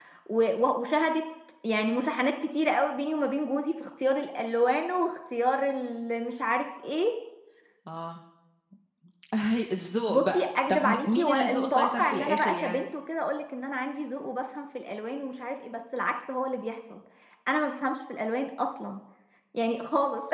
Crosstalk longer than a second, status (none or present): present